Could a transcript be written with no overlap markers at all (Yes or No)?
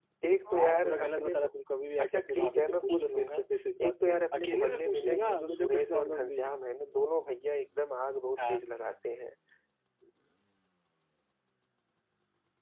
No